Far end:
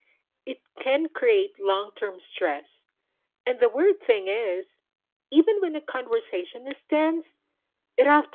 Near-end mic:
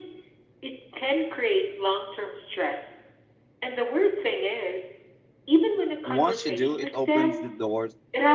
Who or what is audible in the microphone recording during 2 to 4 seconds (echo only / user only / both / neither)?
echo only